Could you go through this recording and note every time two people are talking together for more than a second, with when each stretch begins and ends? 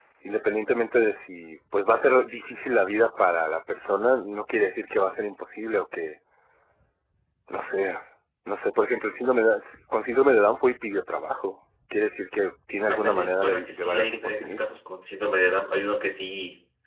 12.9-14.6

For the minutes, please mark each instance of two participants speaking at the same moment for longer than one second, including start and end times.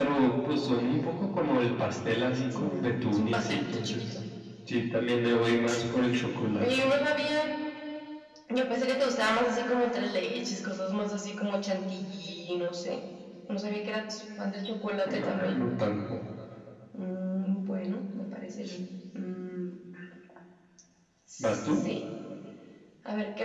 2.6-4.1

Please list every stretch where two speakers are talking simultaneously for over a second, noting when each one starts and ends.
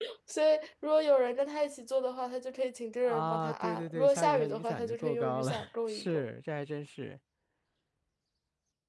3.0-6.2

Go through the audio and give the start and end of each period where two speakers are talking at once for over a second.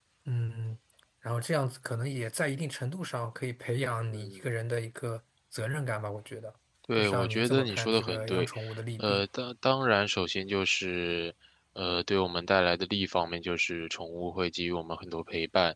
7.0-8.5

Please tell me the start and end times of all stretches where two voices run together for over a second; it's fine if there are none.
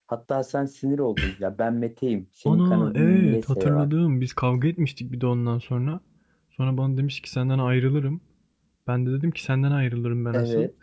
2.5-3.9

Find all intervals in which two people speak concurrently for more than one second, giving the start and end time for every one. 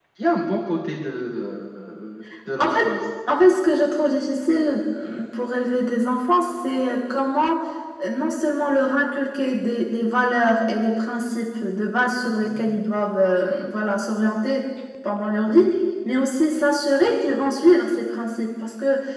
none

